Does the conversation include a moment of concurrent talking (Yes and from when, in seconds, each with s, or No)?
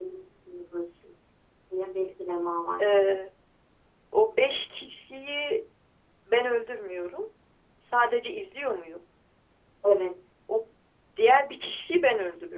No